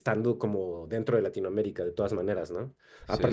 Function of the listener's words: listening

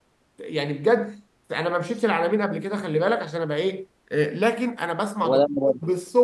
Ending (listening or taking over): listening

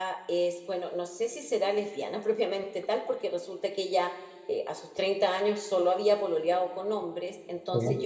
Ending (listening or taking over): listening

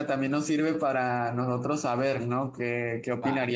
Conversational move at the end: listening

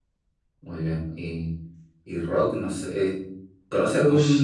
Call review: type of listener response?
listening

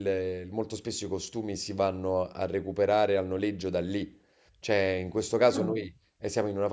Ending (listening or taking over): listening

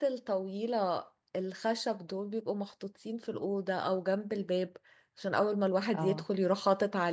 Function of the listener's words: listening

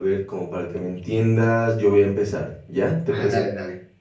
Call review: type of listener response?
taking over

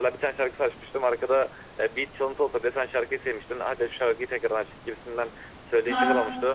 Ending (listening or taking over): listening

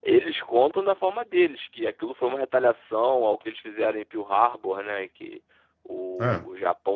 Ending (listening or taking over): listening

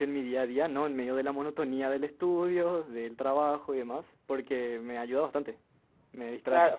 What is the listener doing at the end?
taking over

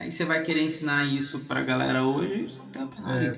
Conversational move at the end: taking over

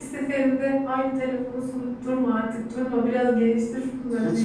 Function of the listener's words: taking over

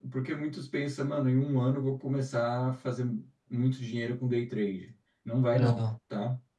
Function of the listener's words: listening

